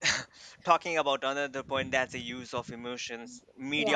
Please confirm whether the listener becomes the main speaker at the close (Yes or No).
No